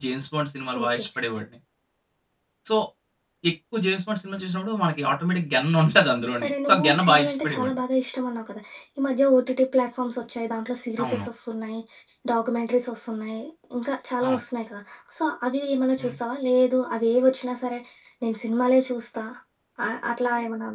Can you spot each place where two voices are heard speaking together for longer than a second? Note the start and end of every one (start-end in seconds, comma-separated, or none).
6.4-7.8